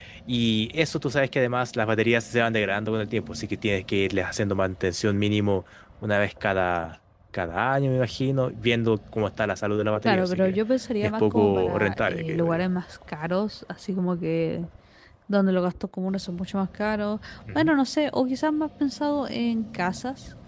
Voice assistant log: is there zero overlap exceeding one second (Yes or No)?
No